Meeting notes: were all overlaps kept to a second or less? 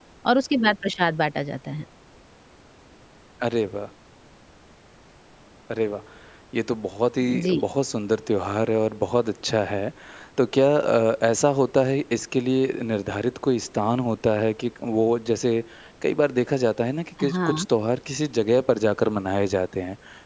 Yes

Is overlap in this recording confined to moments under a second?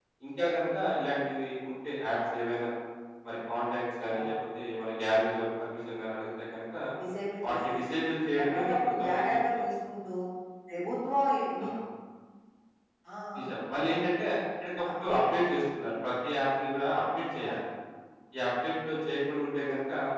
No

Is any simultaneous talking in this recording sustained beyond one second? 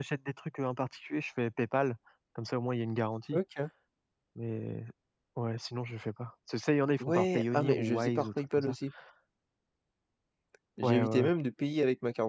Yes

